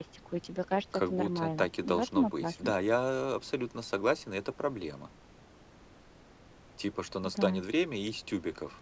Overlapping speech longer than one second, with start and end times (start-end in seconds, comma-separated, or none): 1.1-2.7